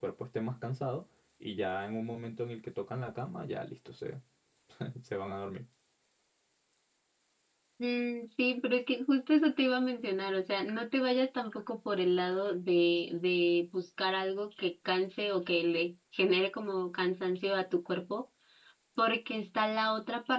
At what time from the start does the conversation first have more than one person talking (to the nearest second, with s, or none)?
none